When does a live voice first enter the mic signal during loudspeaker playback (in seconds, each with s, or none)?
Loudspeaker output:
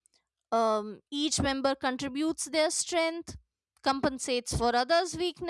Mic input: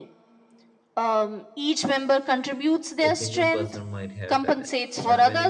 3.0 s